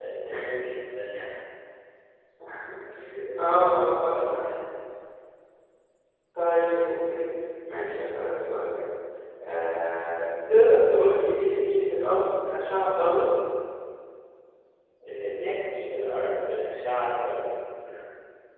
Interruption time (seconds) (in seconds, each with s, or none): 3.4 s